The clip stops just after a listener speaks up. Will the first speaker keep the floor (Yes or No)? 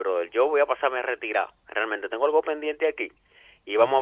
Yes